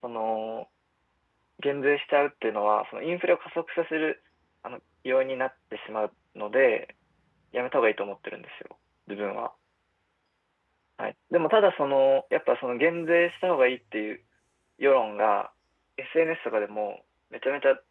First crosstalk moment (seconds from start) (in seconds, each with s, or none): none